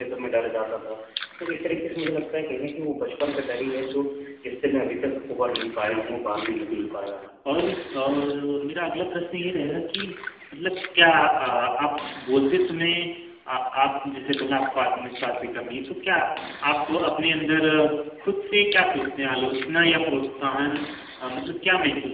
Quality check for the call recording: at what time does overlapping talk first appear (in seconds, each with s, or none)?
5.3 s